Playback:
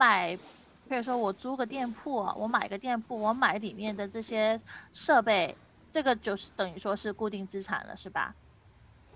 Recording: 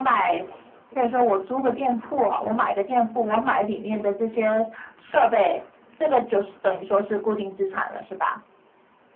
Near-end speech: none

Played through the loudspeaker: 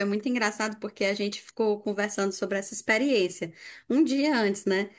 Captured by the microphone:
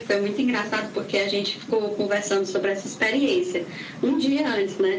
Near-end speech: none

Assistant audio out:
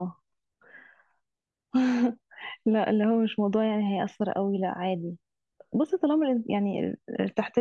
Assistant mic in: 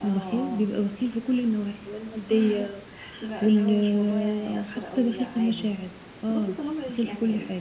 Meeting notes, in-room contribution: present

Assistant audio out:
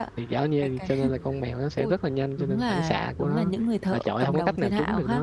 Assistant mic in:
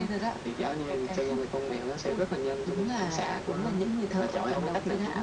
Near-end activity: none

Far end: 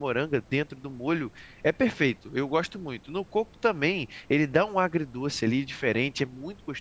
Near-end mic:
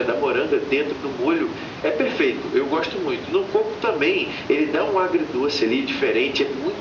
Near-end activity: none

